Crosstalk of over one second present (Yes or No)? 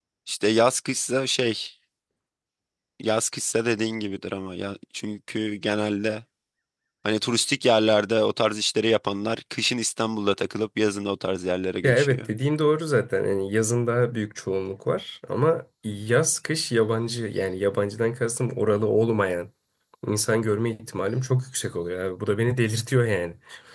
No